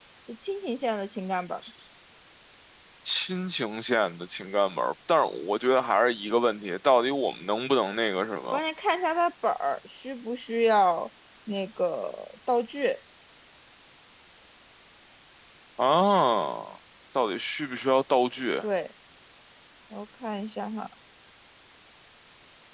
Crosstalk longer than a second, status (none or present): none